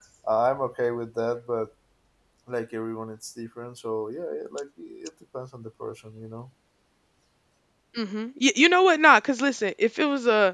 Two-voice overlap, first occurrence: none

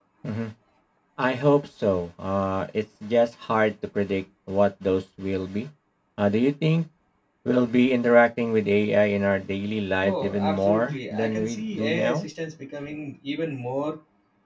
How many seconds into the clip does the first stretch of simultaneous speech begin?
10 s

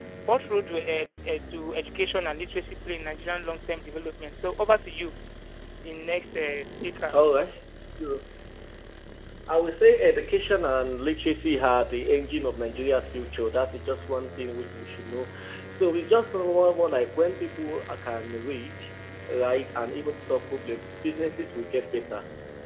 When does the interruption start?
none

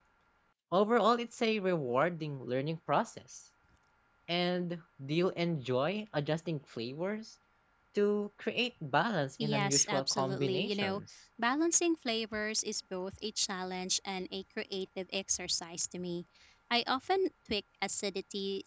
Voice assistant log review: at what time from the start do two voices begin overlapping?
9 s

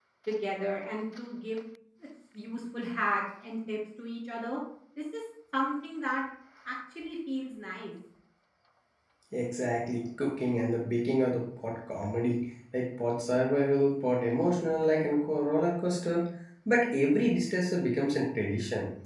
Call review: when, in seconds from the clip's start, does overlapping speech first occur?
none

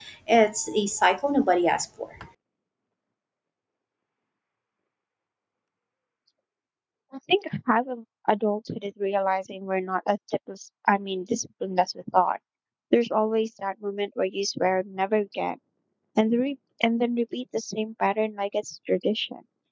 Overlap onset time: none

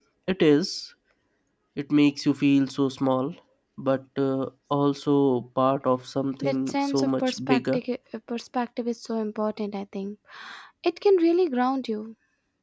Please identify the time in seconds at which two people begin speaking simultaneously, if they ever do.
6 s

